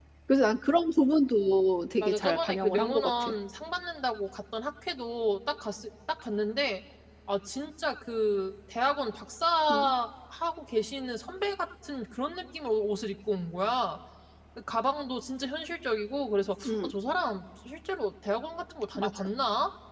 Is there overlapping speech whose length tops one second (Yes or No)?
Yes